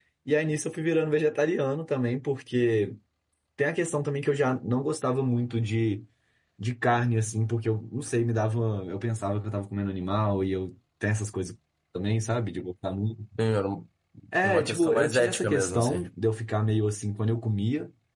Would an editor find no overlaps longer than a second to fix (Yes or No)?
No